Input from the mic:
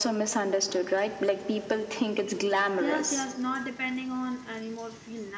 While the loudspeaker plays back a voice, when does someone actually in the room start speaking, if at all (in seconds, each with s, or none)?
2.8 s